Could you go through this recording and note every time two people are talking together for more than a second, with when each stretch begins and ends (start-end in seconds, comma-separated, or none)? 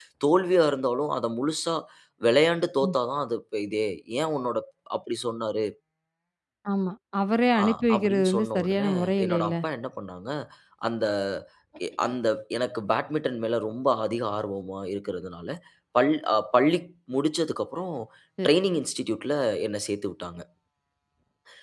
7.6-9.5